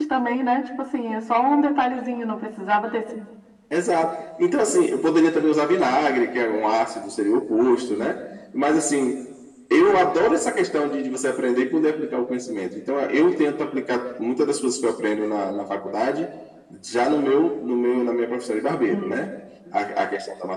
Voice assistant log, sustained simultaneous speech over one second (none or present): none